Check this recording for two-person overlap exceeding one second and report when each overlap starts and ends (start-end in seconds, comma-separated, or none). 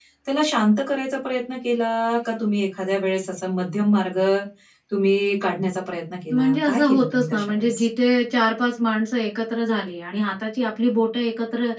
6.3-7.8